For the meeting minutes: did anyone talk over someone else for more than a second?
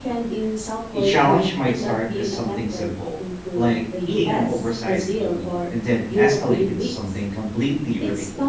Yes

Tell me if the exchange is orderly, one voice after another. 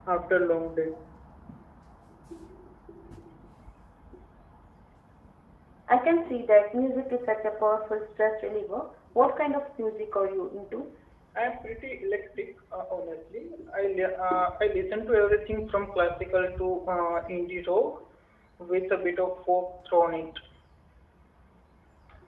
Yes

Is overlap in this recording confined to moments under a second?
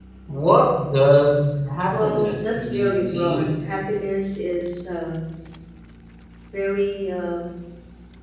No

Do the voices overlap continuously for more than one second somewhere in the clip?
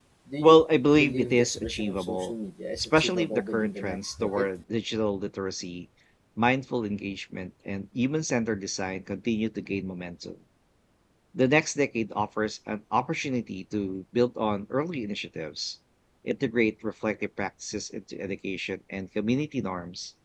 Yes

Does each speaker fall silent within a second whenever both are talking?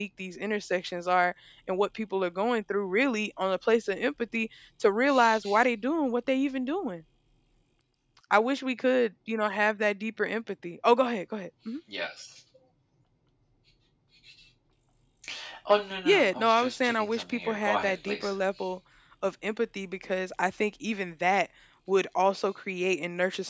No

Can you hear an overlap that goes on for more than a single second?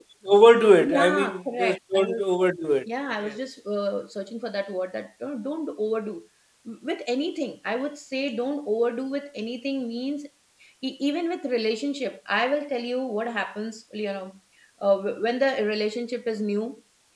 Yes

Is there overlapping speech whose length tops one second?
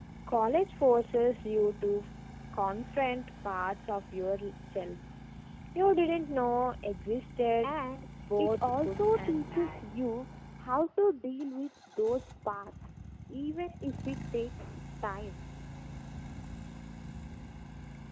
Yes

